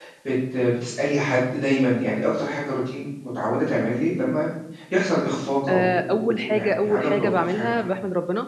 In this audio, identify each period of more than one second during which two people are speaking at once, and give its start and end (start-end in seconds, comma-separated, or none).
5.7-7.9